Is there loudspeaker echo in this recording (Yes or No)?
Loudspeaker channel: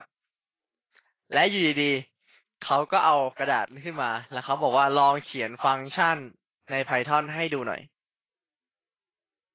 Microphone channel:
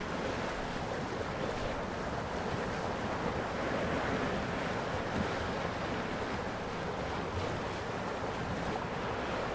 No